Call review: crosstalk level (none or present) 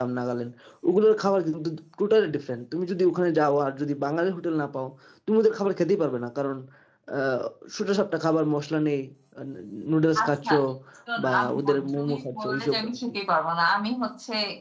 present